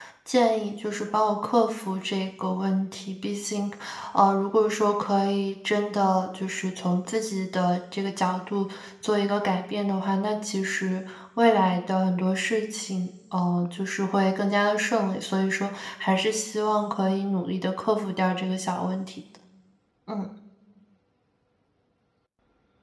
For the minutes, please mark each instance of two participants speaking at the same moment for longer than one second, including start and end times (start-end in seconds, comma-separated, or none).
none